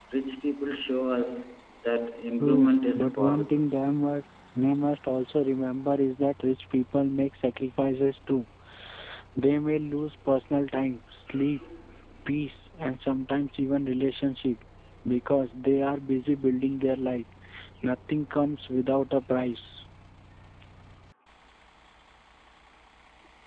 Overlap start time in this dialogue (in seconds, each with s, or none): 2.4 s